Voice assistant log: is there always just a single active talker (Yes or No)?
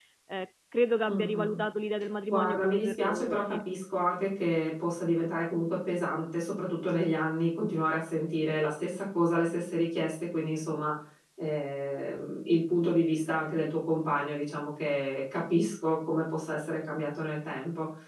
No